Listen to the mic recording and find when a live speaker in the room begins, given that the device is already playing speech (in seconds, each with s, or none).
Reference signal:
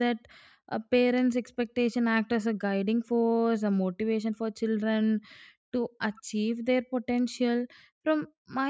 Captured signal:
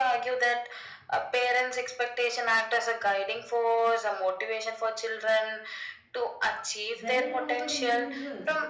6.9 s